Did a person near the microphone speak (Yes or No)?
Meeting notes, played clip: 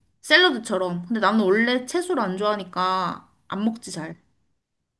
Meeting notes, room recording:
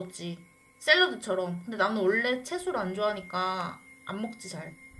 No